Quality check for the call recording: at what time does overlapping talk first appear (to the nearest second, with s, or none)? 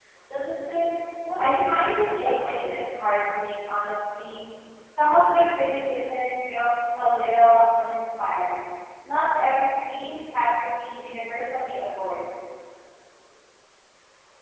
1 s